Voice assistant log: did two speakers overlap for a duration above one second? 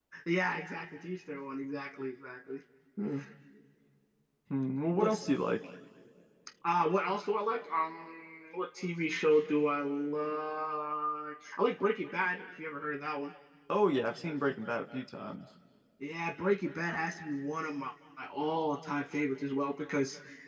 No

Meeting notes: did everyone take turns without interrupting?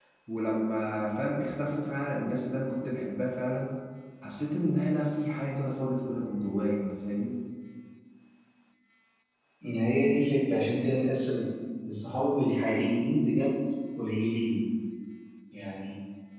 Yes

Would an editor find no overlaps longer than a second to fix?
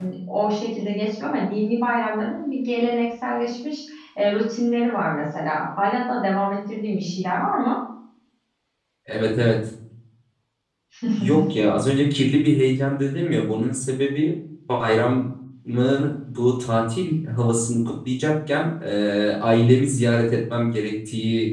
Yes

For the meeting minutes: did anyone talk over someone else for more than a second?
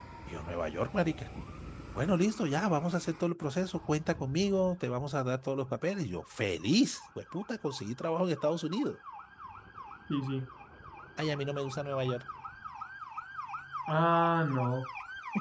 No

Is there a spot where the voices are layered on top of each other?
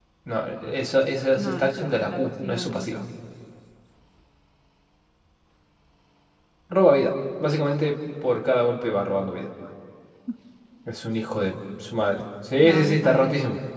Yes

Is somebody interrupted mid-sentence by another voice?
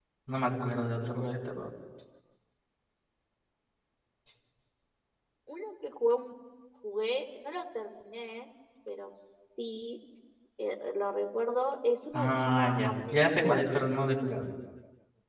Yes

